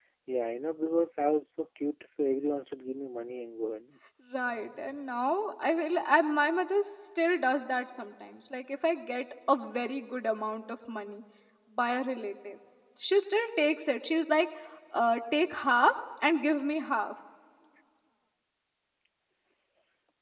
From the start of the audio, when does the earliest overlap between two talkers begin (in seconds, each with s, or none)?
none